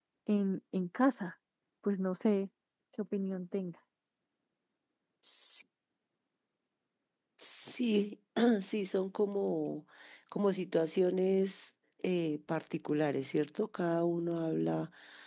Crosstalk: none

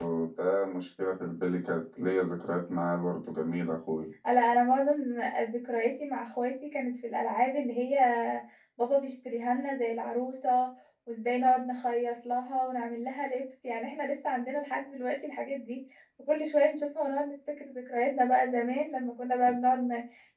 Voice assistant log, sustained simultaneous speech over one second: none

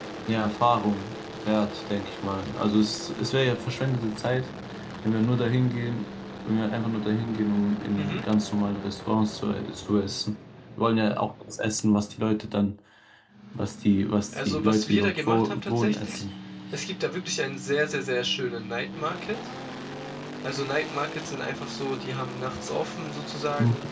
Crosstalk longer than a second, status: present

